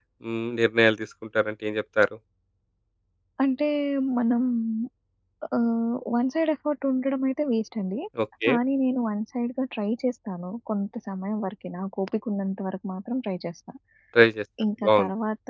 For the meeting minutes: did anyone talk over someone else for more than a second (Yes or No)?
No